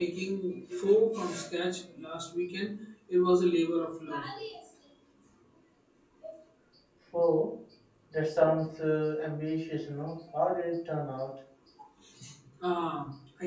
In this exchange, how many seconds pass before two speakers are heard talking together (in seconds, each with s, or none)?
none